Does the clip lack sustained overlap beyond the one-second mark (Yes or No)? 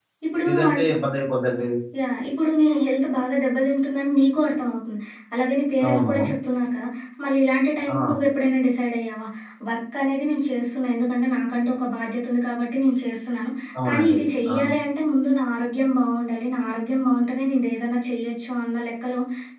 Yes